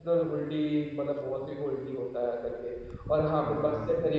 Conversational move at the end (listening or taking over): listening